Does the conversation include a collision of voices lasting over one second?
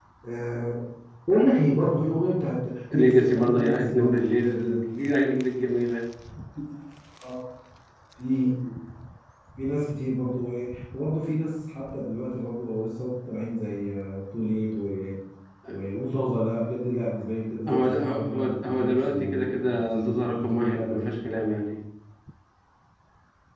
Yes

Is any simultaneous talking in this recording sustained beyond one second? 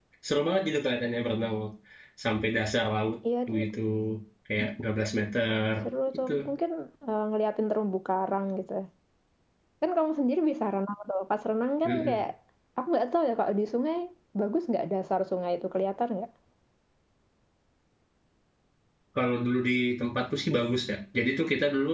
No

